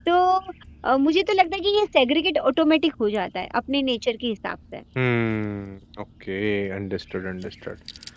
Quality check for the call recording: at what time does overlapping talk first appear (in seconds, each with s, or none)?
none